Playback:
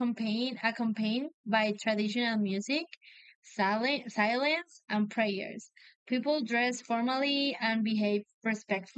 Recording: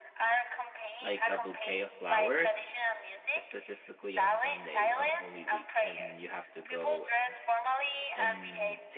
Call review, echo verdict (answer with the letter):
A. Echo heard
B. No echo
A